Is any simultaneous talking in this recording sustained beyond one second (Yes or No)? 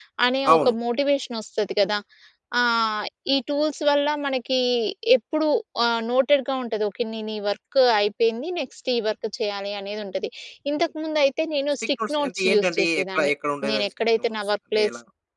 Yes